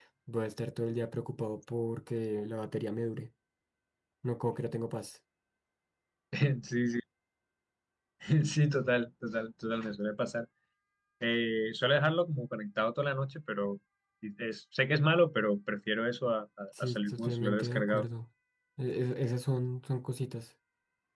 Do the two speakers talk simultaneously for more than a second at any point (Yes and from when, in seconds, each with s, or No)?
Yes, from 16.8 s